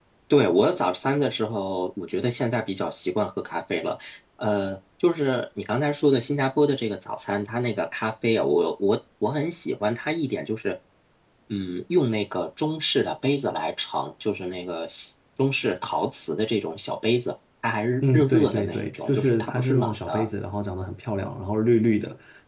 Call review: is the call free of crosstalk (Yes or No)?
No